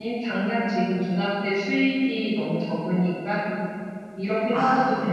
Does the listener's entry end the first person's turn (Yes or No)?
No